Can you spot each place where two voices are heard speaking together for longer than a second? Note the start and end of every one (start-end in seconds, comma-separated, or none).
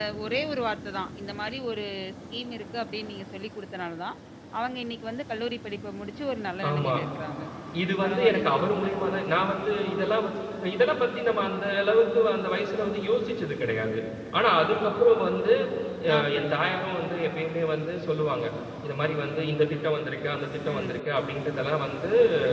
none